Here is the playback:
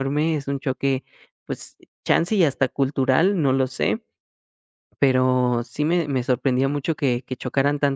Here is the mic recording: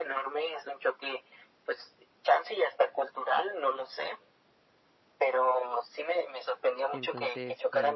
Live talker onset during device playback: 6.9 s

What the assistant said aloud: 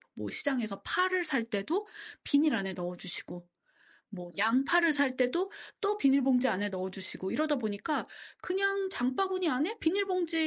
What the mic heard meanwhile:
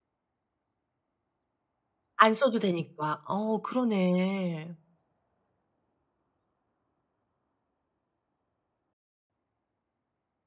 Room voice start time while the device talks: 2.2 s

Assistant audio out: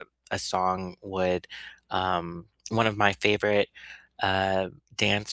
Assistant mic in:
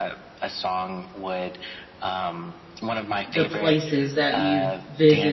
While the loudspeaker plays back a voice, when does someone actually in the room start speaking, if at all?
3.3 s

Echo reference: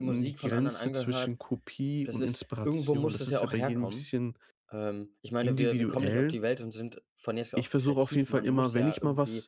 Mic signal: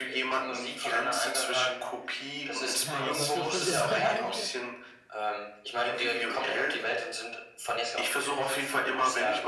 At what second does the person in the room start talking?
2.9 s

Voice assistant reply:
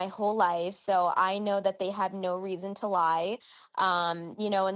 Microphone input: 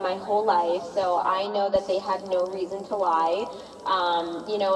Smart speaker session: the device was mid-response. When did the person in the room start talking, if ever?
none

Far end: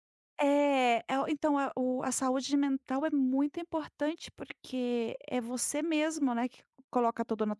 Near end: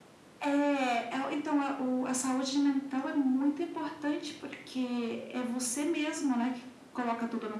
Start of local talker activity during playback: none

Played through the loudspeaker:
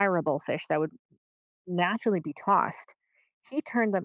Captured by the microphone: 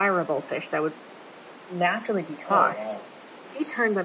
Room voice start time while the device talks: 2.5 s

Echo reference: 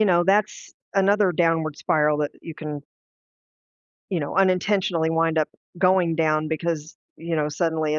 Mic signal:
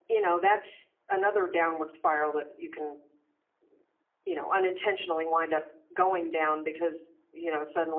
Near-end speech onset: none

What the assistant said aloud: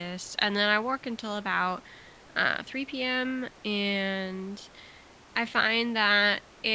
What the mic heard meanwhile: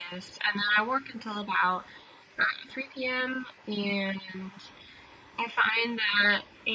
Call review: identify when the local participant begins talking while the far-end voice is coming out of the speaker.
none

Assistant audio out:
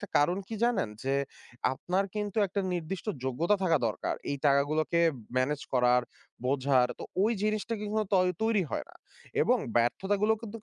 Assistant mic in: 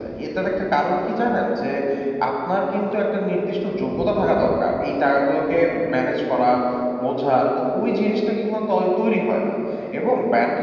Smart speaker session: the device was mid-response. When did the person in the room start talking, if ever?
none

